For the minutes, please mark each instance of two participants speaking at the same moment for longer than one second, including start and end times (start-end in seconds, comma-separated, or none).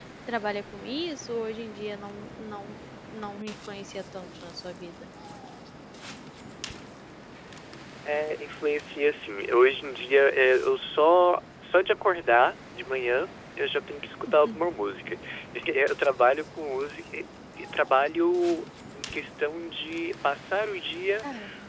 none